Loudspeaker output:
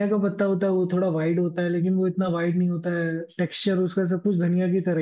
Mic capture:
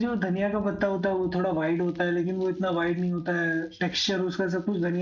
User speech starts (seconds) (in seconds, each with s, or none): none